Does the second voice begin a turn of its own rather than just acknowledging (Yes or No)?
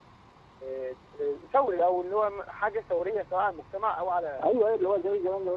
Yes